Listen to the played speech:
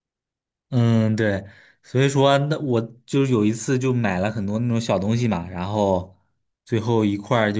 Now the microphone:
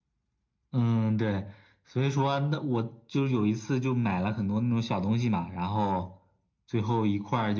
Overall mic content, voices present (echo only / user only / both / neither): echo only